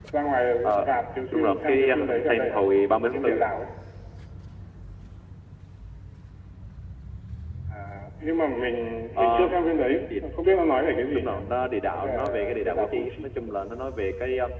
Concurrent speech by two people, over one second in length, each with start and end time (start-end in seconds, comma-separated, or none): 1.3-2.6, 11.9-13.1